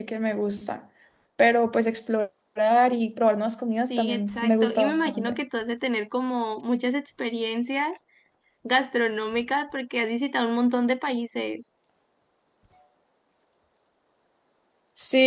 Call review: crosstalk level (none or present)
present